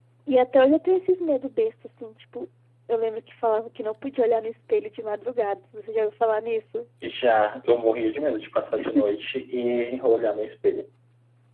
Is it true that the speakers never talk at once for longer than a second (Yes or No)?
Yes